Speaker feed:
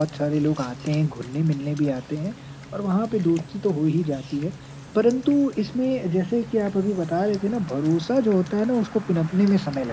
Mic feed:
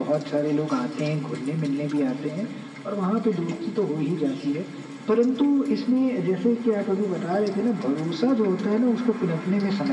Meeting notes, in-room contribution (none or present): none